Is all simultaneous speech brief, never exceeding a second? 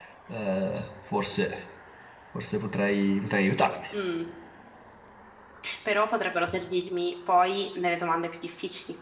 Yes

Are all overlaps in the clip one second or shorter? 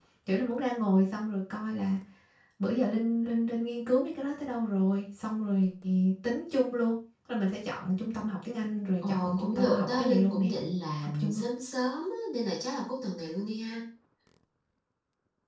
No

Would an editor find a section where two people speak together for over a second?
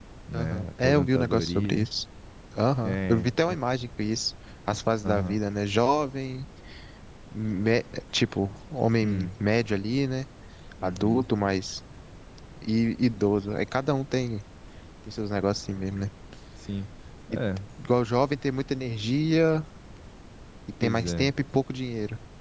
Yes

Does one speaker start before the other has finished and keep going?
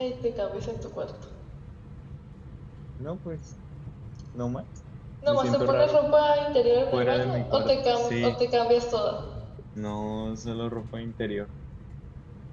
Yes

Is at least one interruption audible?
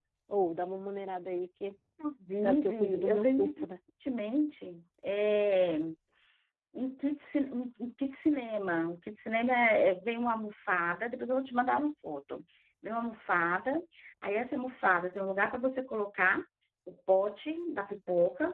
Yes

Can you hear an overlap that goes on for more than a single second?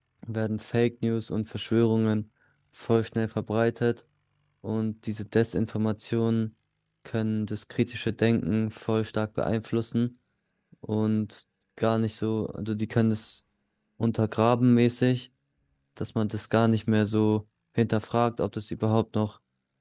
No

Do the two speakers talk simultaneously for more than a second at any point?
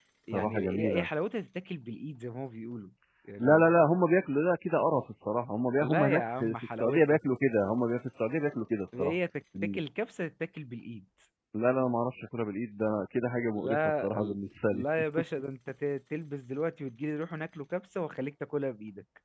Yes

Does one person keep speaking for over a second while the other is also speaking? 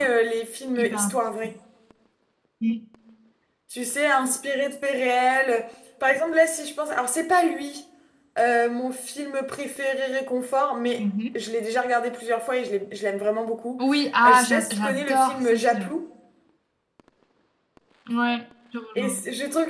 Yes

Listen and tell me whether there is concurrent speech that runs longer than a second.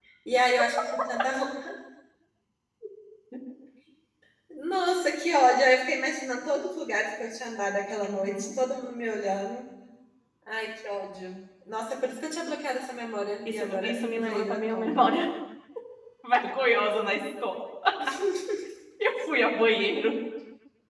Yes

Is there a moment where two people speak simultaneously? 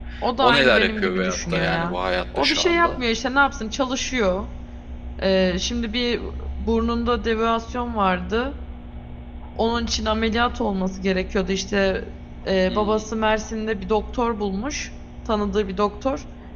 Yes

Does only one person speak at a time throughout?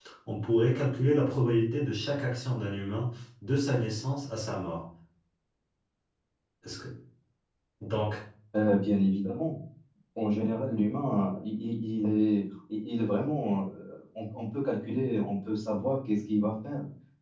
Yes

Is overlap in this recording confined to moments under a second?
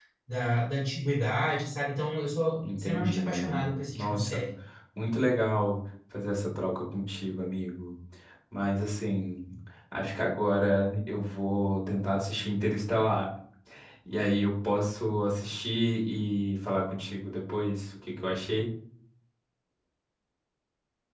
No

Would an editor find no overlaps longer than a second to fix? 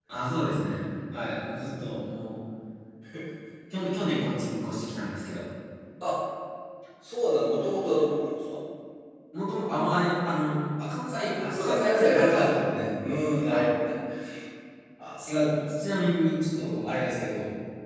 No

